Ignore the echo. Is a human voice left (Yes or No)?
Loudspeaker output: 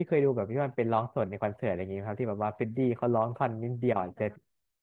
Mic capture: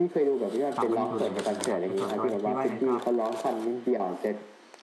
Yes